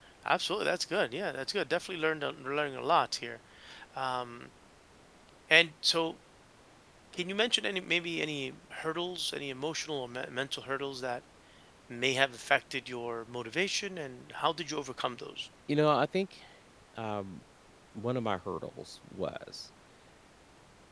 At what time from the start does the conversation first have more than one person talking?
none

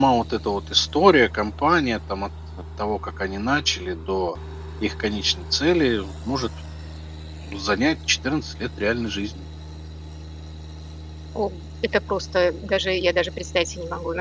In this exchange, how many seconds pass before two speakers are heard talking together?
none

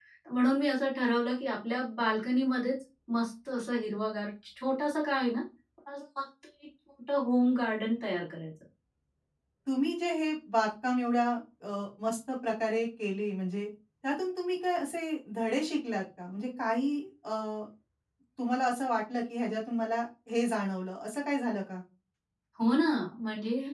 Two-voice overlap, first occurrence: none

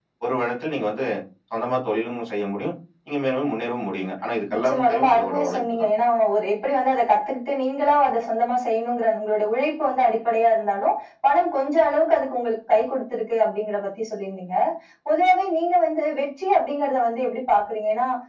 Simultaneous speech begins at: 4.5 s

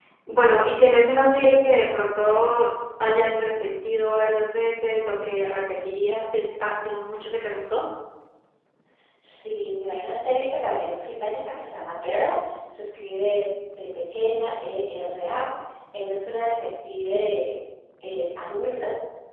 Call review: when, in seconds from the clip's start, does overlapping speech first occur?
none

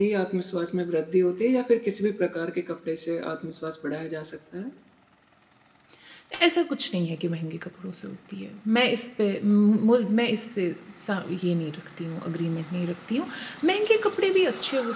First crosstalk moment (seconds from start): none

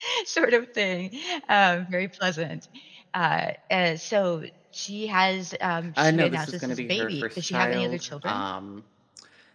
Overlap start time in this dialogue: 5.8 s

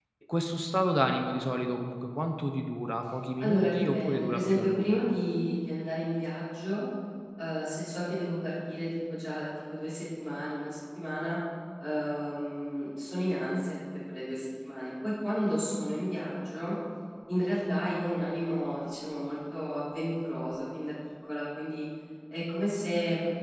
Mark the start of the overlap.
3.4 s

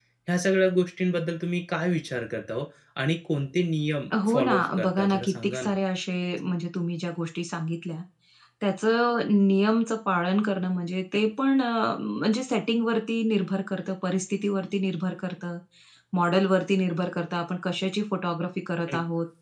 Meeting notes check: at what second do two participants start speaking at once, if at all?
4.1 s

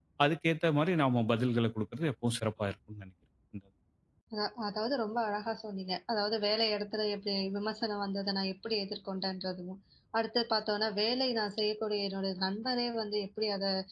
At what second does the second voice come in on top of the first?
none

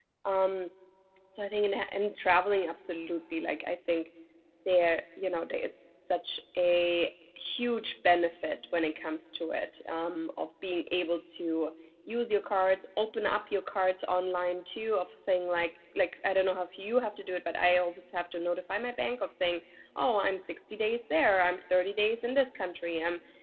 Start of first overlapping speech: none

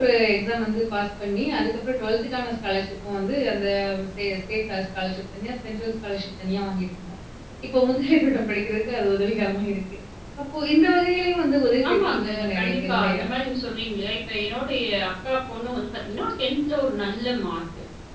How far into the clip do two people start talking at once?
11.8 s

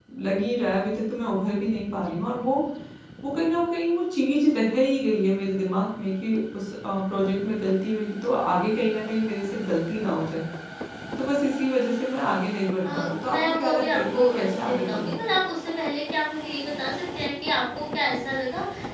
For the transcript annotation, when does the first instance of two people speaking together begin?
12.8 s

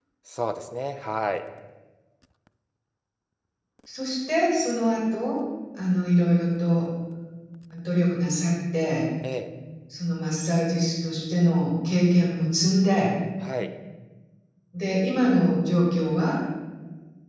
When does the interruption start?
none

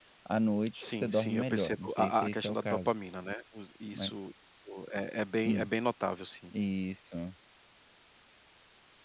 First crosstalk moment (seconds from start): 0.8 s

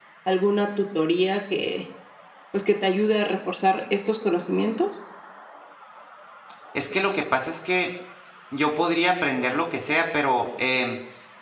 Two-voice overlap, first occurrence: none

